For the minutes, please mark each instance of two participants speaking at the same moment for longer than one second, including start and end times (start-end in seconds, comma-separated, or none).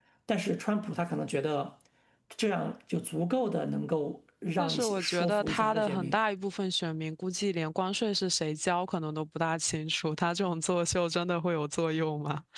4.6-6.2